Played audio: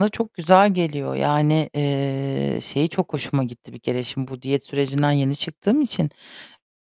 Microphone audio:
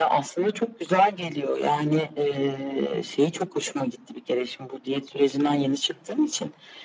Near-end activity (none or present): none